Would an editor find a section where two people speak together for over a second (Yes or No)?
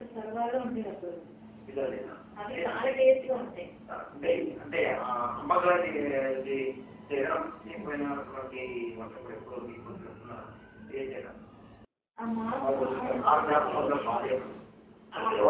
Yes